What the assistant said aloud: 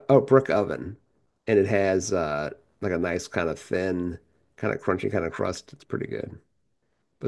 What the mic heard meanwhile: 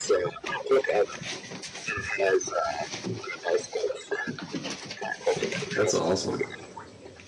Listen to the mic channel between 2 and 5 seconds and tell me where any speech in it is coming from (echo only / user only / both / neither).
echo only